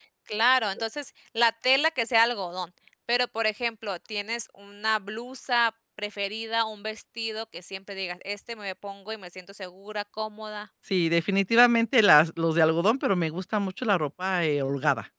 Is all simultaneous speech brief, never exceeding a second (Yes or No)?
Yes